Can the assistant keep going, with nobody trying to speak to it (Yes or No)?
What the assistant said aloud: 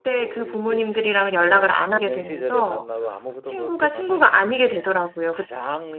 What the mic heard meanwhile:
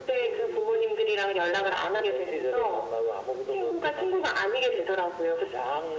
Yes